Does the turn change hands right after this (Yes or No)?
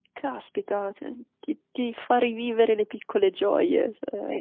Yes